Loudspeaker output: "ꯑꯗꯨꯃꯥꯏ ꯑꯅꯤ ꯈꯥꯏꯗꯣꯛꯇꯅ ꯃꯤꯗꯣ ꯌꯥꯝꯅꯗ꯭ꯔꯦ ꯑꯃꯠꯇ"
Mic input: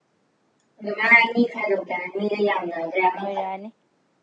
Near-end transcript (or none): ꯑꯣꯏꯔꯛꯑꯅꯤ